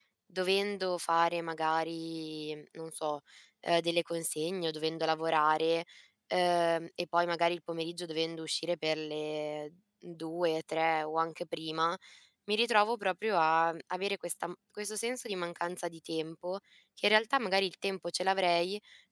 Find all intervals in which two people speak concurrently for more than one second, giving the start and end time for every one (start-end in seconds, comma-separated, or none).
none